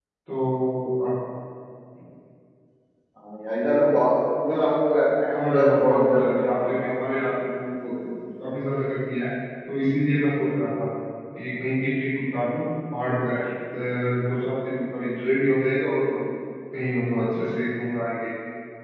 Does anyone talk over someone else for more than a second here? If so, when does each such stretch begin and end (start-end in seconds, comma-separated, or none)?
5.3-6.7